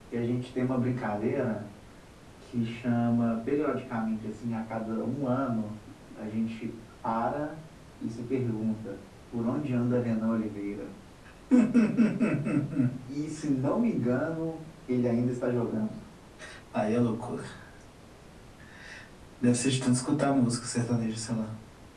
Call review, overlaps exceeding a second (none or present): none